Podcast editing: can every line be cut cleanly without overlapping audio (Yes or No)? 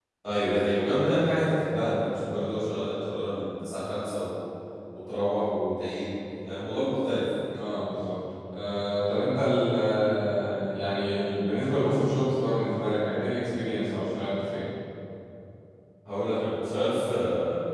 Yes